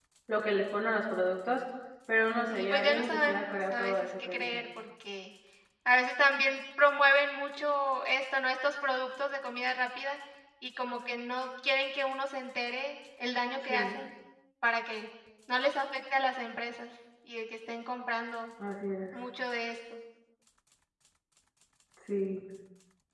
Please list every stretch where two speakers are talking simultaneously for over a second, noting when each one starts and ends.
2.5-4.6

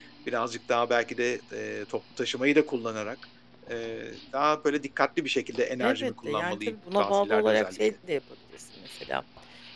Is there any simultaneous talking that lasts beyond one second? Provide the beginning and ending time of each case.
5.8-7.8

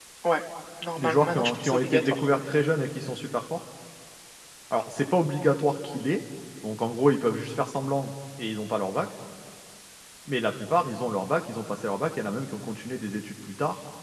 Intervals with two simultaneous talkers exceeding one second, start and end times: 1.0-2.3

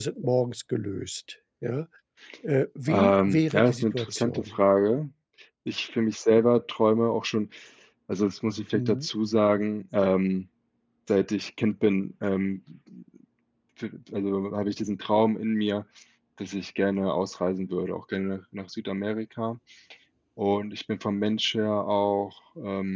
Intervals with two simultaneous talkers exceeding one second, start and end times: 2.9-4.5

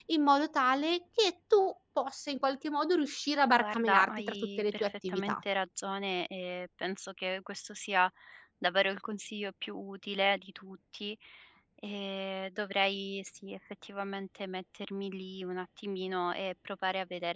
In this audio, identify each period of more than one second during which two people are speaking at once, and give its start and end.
3.6-5.4

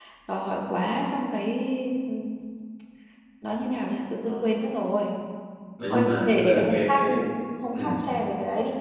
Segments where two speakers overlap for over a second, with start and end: 5.9-7.2

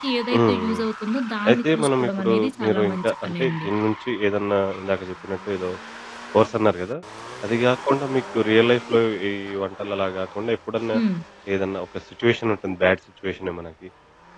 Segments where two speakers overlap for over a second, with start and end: 1.5-3.7

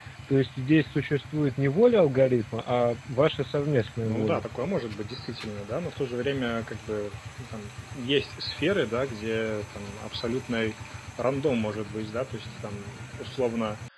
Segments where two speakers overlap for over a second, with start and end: none

